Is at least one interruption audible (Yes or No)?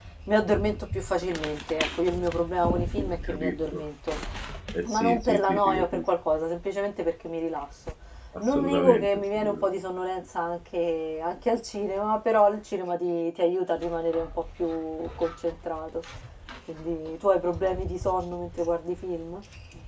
Yes